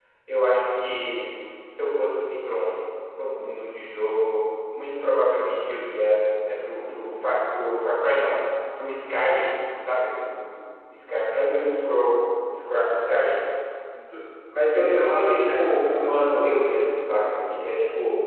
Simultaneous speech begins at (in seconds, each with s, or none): 14.7 s